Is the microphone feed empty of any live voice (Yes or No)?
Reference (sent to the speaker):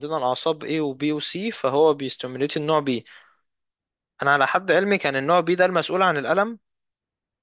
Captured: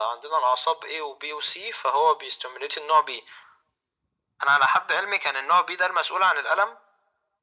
Yes